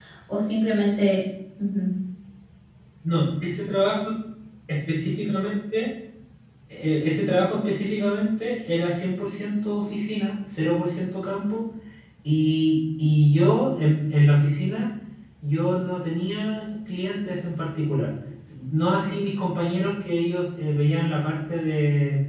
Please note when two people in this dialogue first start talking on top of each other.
none

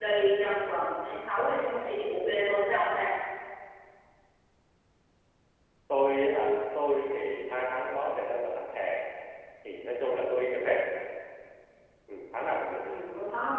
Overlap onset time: none

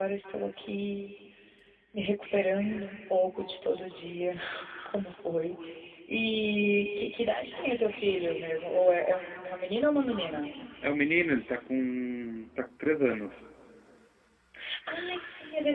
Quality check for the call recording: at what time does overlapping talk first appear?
none

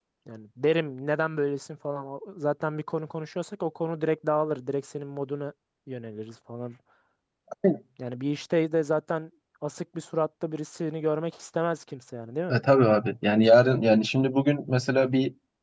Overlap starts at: none

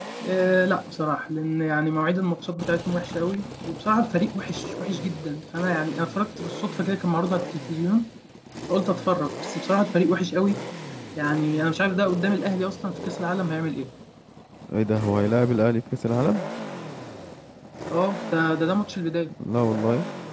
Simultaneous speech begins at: none

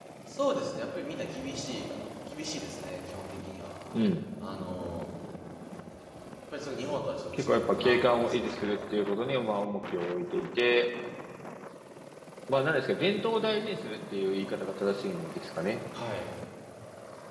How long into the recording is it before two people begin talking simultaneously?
7.3 s

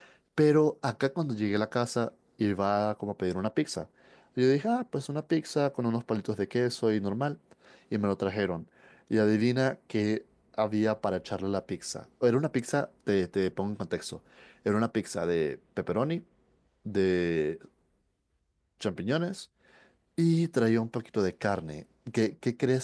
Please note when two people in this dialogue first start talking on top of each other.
none

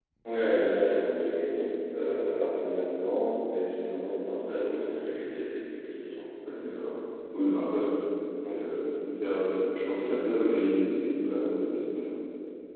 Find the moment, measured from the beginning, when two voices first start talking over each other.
none

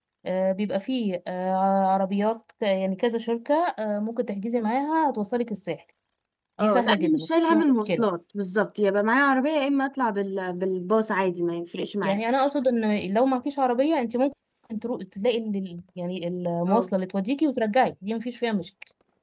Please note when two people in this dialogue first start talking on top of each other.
6.6 s

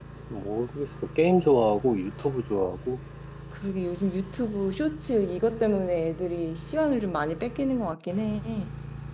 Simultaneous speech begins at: none

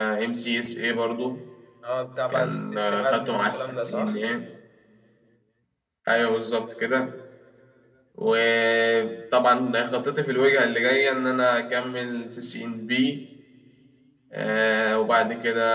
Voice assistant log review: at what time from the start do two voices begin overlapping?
2.3 s

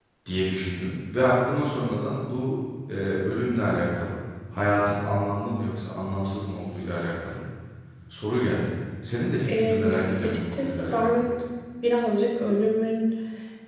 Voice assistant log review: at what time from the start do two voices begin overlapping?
9.5 s

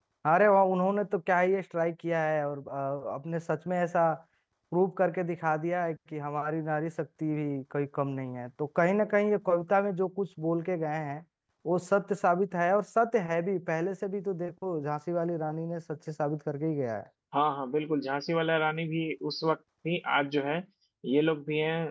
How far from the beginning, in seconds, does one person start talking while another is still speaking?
none

